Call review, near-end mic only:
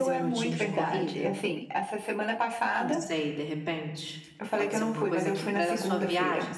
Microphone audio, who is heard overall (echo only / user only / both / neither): both